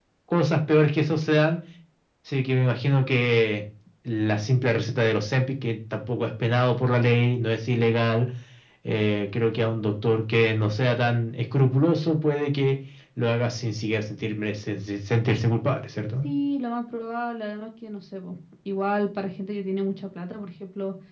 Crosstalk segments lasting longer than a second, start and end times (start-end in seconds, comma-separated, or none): none